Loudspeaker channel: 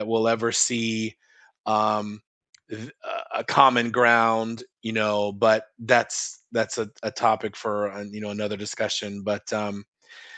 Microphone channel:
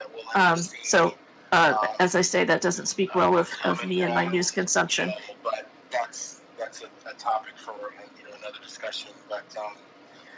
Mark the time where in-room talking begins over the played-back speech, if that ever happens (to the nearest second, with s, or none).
0 s